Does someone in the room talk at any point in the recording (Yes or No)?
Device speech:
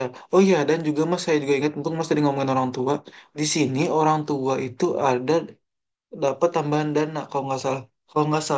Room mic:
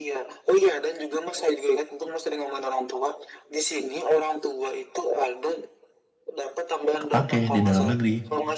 Yes